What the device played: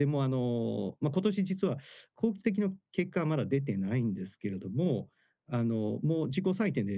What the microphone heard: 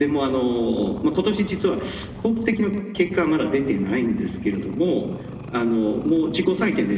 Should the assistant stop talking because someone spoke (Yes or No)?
No